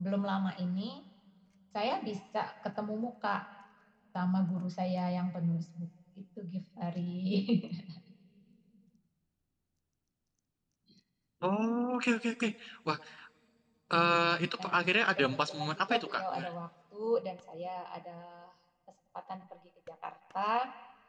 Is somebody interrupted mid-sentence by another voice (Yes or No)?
Yes